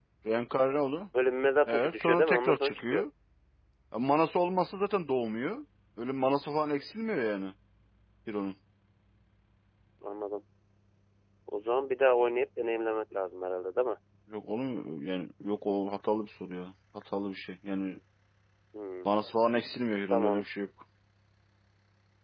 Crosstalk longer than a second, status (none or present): present